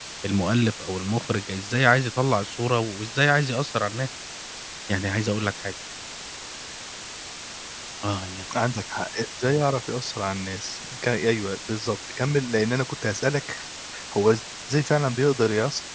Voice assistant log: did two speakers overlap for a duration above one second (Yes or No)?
No